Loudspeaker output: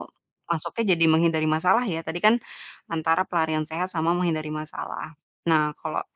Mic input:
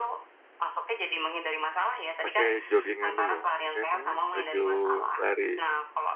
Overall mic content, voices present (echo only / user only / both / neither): both